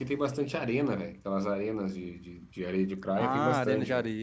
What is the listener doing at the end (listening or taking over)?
taking over